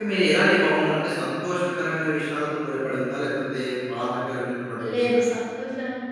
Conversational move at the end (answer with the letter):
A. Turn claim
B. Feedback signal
A